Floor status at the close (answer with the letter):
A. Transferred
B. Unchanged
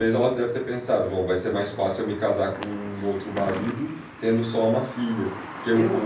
A